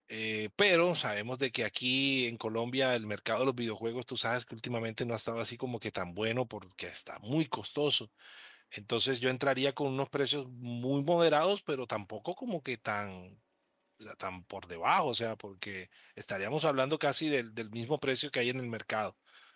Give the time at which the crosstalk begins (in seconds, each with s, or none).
none